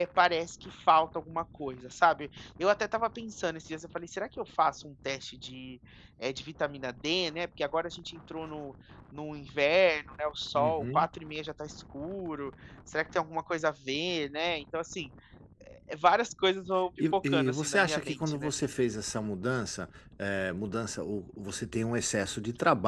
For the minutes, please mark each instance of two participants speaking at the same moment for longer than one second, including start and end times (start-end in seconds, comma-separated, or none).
17.1-18.5